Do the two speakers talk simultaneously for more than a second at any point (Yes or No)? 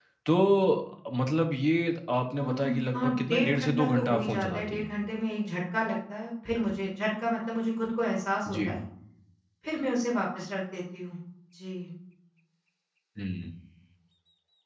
Yes